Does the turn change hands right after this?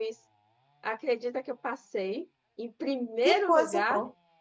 Yes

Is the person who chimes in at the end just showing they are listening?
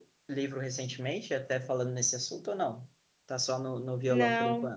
No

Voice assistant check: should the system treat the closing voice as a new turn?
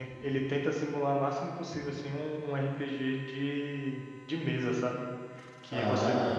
No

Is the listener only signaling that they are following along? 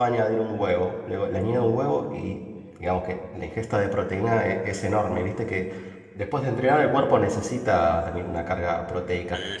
No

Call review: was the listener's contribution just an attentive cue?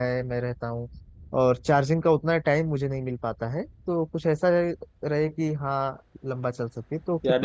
No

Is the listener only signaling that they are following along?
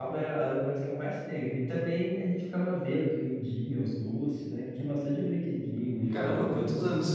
No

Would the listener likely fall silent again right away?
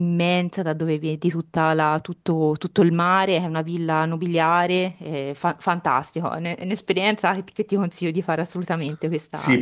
No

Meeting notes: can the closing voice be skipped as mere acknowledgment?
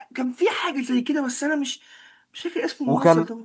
No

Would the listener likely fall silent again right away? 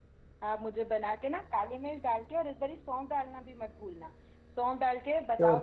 No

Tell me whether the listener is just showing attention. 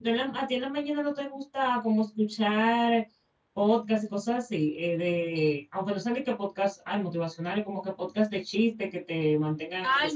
No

